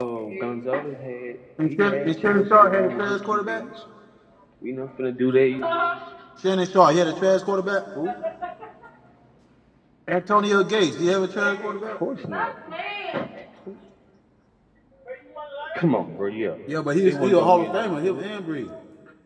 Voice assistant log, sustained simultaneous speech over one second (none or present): present